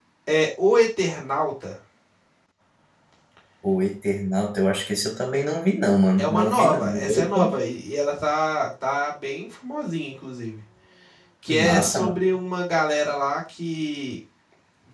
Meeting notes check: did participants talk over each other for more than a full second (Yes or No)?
Yes